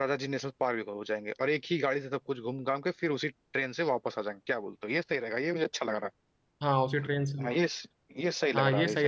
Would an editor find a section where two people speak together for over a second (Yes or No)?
No